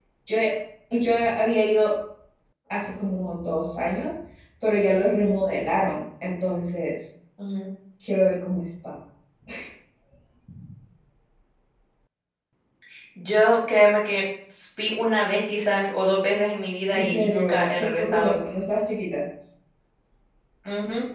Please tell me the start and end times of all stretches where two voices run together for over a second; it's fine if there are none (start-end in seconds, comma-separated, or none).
16.9-18.4